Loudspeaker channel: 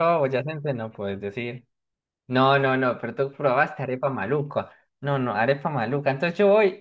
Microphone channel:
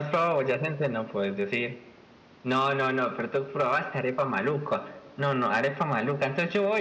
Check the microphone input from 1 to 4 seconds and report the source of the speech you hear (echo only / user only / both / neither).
echo only